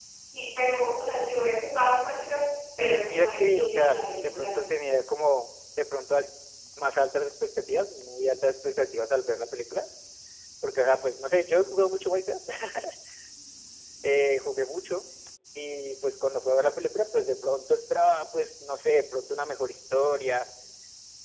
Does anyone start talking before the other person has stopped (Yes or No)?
Yes